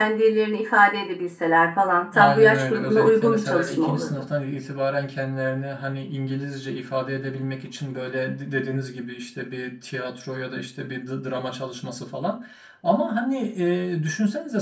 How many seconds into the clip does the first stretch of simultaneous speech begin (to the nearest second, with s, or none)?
2 s